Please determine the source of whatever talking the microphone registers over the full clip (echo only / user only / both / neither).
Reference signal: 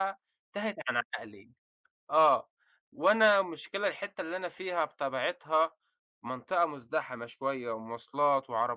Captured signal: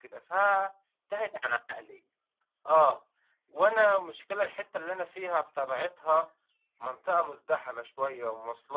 echo only